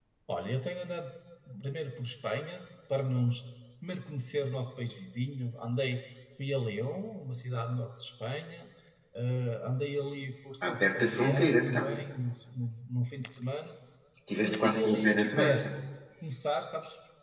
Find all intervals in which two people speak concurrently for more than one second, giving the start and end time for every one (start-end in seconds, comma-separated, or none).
10.6-11.9, 14.4-15.7